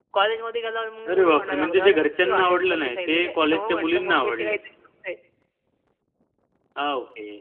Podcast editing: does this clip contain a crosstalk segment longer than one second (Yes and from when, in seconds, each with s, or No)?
Yes, from 1.1 s